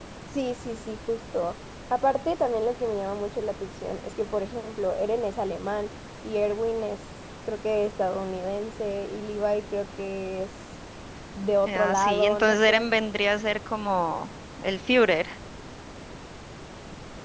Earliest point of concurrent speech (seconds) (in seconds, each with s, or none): 11.7 s